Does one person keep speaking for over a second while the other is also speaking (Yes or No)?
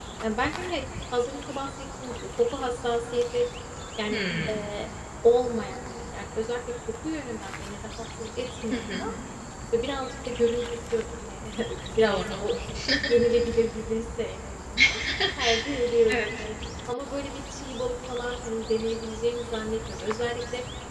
No